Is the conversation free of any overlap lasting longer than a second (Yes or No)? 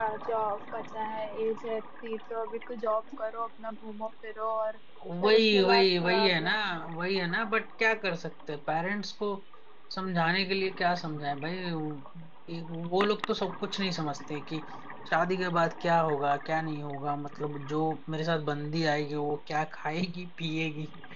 No